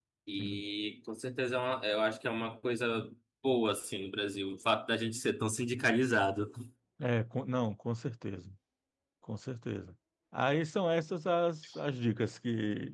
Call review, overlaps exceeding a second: none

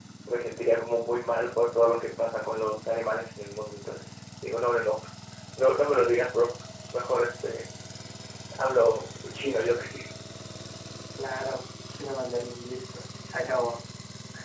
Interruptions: none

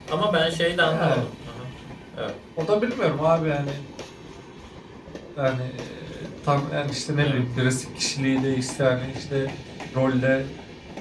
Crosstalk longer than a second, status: none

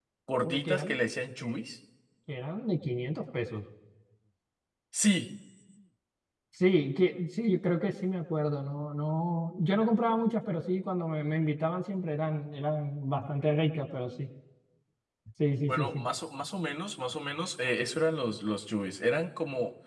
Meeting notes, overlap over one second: none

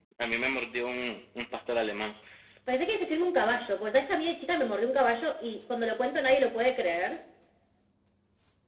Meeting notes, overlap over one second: none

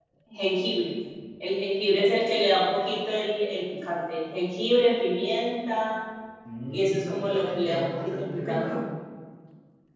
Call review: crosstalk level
present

